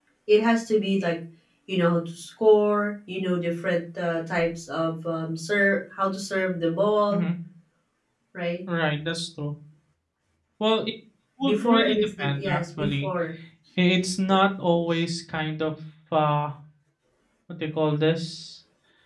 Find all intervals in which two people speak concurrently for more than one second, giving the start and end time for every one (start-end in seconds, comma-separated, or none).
11.4-13.1